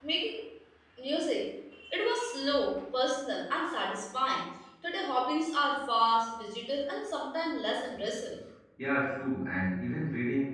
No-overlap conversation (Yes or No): Yes